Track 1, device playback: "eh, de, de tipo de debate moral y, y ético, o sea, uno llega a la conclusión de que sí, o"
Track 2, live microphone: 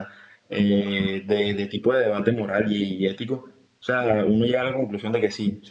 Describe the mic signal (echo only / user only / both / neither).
echo only